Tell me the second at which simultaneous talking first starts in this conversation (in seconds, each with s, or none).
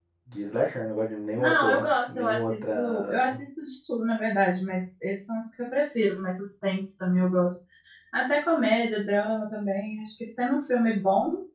1.4 s